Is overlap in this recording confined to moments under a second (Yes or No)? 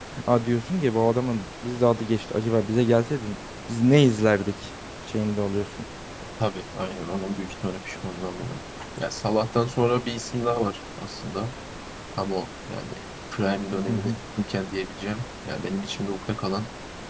Yes